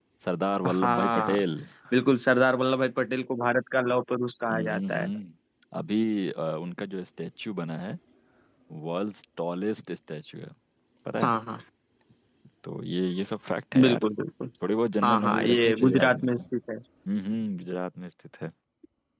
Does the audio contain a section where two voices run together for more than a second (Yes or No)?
Yes